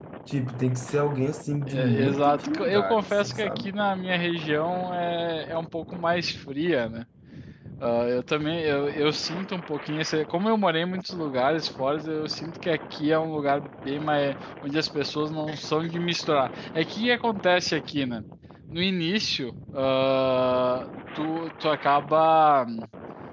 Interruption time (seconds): 1.7 s

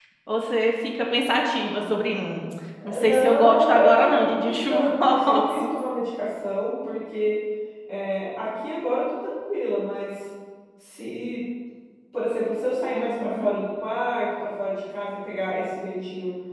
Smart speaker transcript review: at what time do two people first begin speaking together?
3.1 s

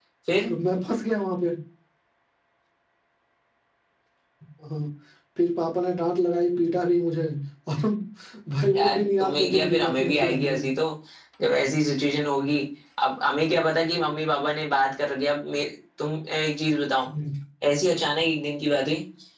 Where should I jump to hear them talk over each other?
8.8 s

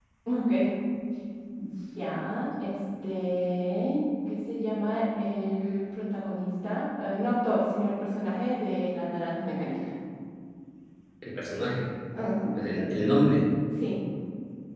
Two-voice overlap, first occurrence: none

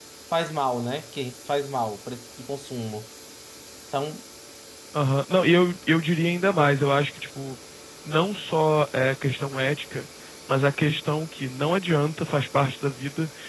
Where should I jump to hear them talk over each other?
none

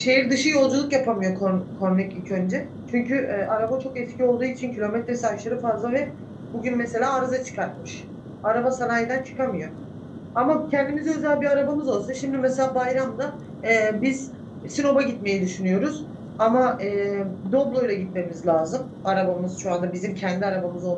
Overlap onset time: none

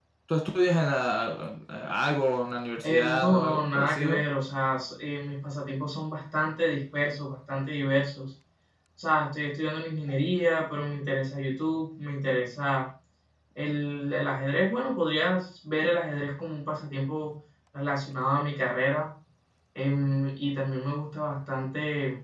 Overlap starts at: 2.8 s

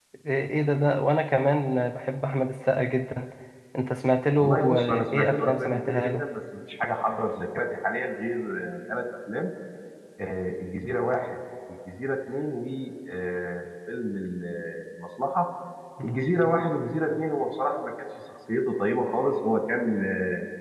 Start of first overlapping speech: 4.4 s

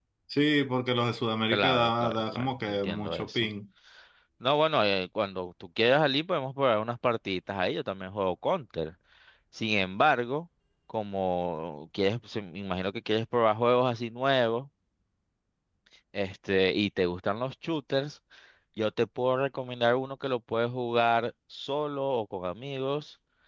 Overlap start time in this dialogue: 1.5 s

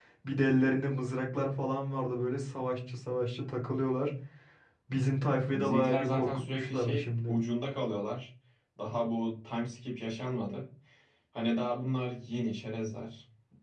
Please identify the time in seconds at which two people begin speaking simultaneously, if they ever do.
5.5 s

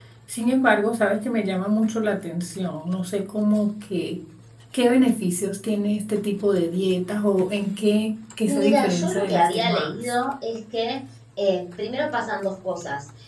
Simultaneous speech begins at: 8.4 s

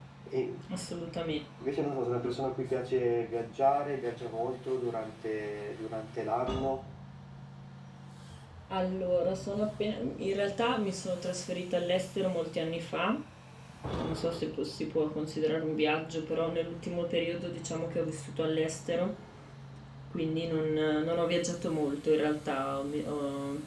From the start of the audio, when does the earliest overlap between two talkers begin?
none

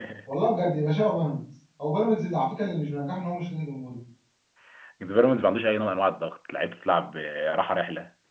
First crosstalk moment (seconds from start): none

